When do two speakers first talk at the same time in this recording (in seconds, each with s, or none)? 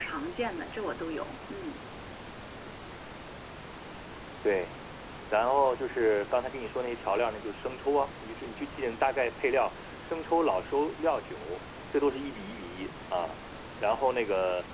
none